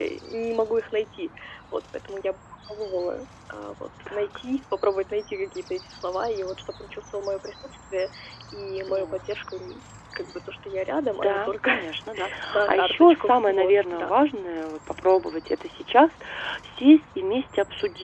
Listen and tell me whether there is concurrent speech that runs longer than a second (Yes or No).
Yes